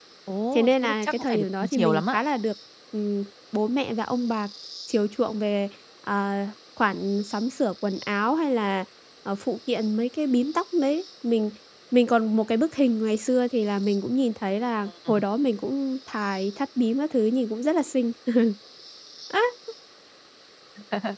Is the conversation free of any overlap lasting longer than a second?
No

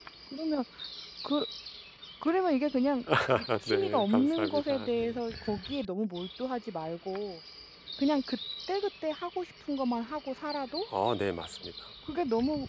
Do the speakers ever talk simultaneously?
Yes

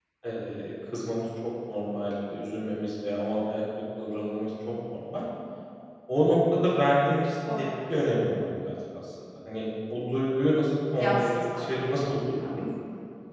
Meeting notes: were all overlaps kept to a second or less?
No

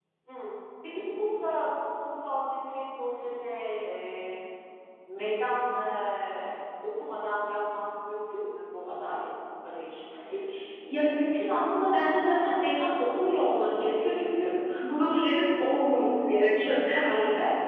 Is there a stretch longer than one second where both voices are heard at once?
No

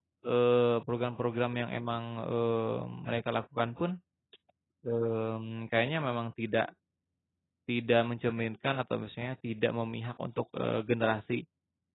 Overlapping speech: No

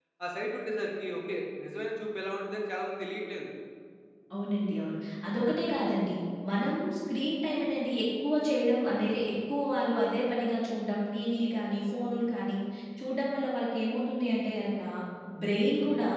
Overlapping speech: No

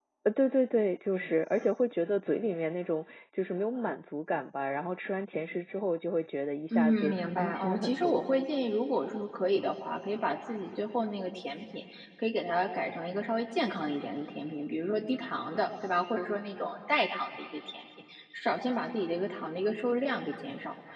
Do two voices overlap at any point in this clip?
Yes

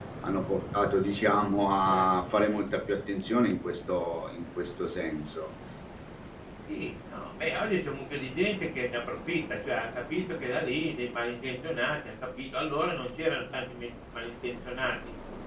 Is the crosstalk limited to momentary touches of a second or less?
Yes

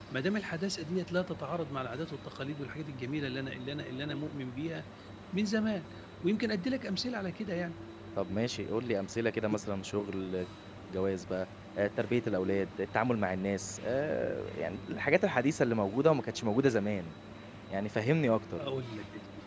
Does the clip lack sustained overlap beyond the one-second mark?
Yes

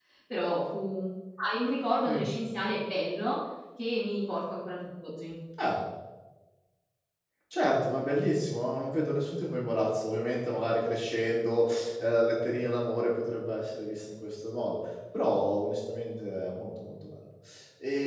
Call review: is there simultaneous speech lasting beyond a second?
No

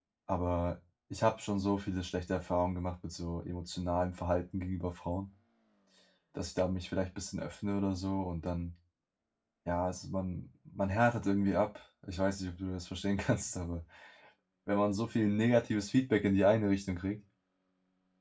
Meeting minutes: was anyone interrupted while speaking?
No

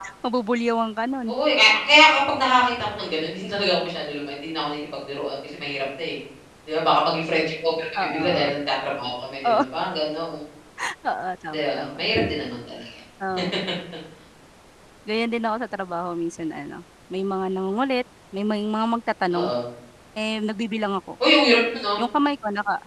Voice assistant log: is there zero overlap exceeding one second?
Yes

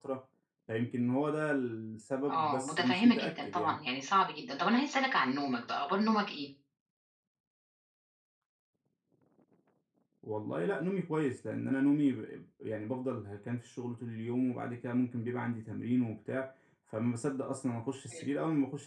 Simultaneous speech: Yes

